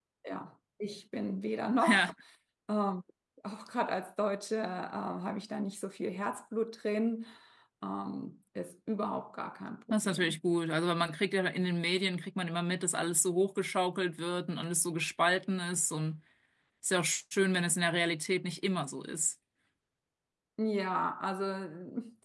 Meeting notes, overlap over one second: none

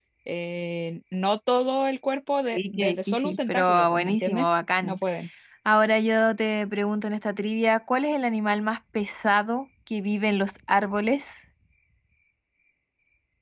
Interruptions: present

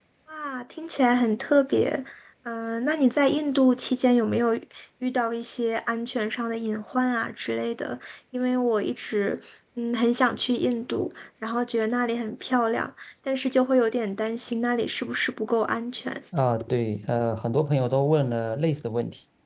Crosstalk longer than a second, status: none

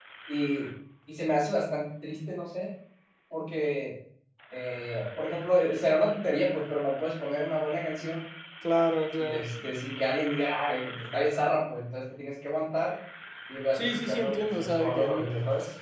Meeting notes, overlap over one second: present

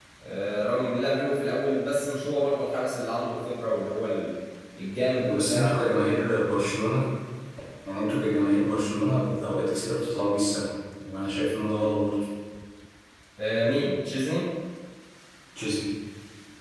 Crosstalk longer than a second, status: none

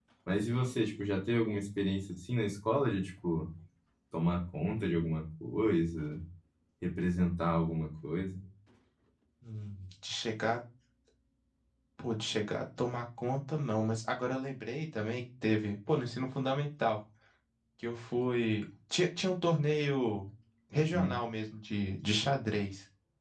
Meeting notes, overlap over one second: none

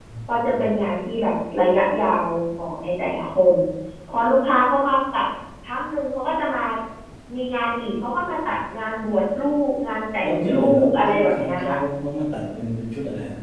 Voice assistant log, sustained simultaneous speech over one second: present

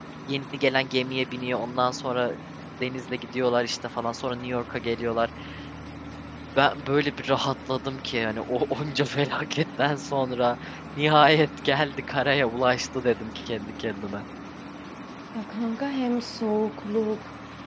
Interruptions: none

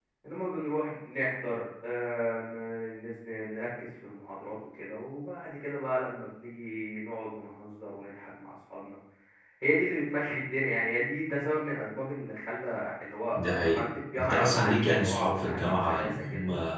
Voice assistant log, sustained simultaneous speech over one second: present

